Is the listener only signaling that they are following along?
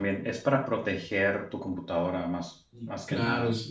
No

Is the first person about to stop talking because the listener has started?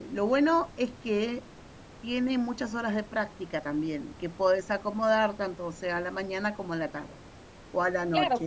Yes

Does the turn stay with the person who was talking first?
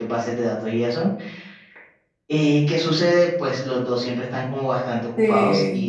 Yes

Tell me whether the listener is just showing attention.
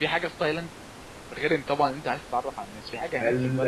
No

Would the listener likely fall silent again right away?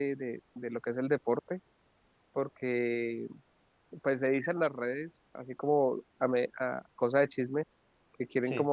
Yes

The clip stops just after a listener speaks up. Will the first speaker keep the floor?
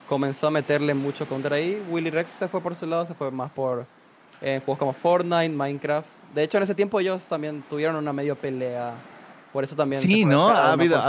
No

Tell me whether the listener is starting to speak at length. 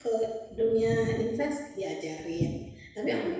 No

